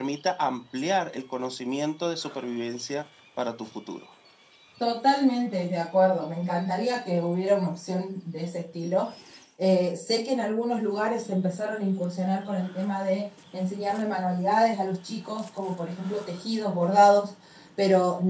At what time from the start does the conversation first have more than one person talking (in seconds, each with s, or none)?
none